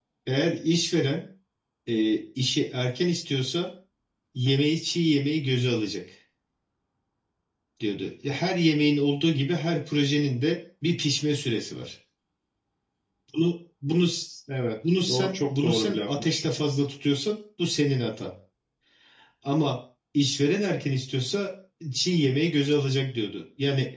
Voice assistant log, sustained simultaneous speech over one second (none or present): present